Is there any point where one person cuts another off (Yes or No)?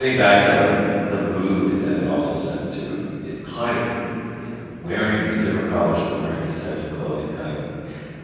No